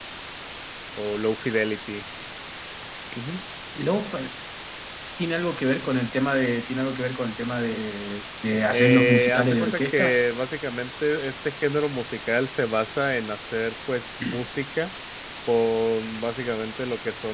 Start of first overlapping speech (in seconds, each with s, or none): 8.7 s